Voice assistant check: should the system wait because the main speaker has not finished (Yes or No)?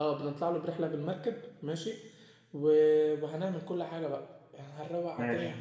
Yes